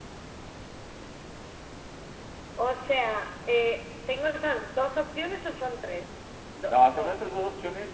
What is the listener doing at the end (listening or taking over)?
taking over